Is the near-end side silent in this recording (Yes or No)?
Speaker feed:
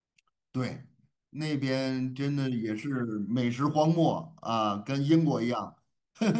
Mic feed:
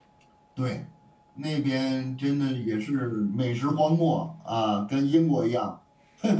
Yes